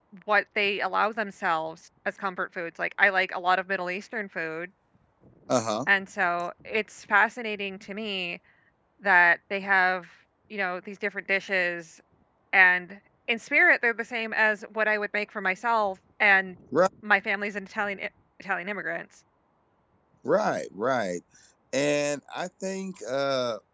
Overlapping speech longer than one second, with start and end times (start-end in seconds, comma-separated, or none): none